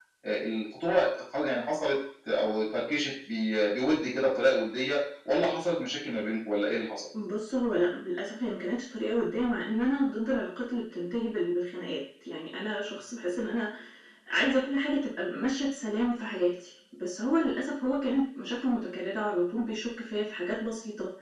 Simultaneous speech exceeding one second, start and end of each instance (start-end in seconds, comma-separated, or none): none